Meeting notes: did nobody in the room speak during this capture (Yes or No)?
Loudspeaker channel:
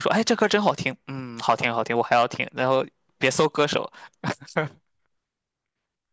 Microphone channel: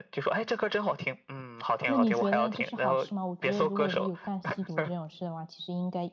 No